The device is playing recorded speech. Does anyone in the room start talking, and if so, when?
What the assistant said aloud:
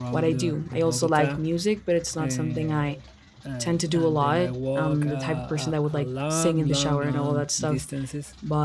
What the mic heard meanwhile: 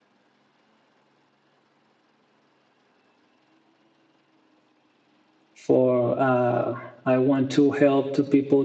6 s

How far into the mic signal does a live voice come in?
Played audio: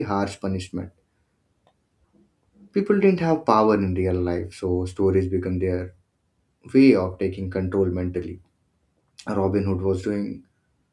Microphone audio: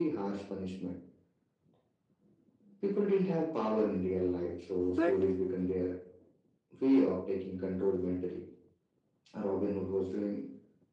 5 s

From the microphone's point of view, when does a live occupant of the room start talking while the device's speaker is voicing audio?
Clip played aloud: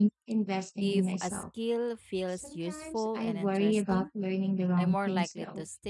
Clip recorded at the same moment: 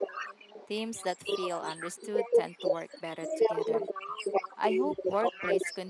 1 s

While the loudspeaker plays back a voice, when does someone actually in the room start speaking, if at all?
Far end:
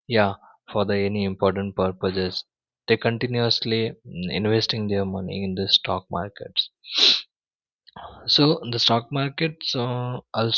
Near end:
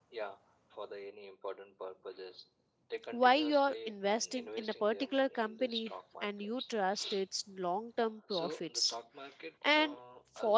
3 s

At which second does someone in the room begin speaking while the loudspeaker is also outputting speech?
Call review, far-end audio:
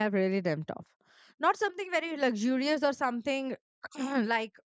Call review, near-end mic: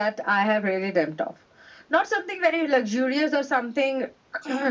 none

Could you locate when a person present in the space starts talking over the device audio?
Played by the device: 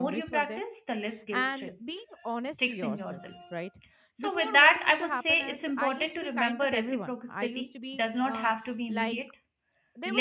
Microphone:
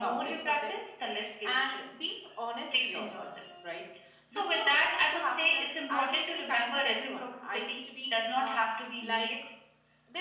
none

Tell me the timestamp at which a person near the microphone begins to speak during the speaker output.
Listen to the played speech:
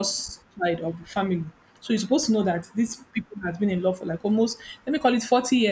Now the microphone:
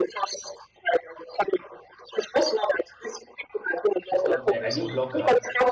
4 s

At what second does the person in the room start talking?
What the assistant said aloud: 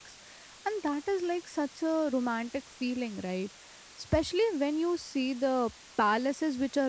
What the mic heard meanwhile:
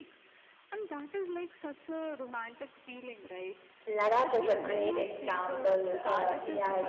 4 s

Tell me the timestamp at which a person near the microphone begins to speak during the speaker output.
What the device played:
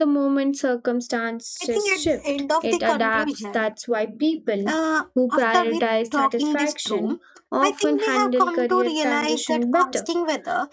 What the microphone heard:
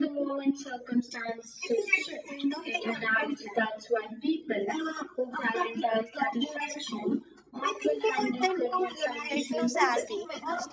8 s

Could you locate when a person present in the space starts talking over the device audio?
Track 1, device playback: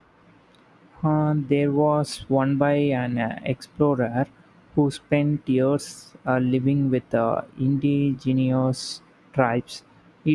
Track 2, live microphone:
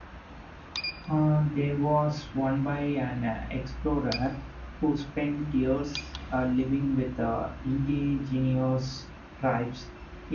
none

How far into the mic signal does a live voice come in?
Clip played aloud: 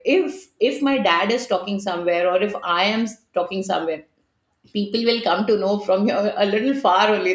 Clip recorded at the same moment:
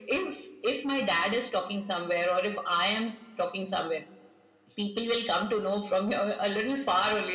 none

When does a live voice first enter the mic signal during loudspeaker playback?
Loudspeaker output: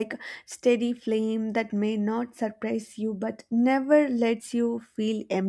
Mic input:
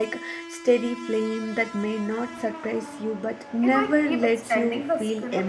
4 s

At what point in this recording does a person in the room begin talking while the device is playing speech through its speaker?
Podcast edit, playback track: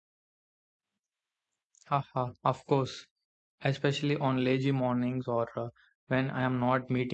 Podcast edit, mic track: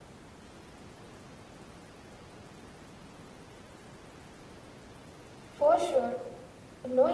6 s

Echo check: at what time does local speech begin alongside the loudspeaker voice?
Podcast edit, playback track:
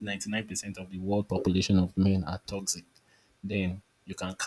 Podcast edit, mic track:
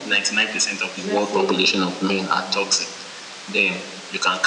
1 s

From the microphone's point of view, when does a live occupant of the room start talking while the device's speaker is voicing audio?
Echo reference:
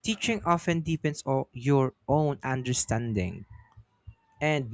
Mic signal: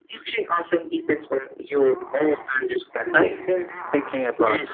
3 s

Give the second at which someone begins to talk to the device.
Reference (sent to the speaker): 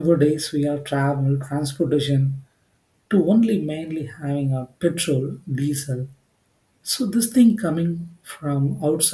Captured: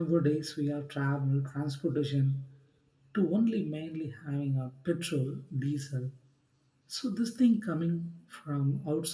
none

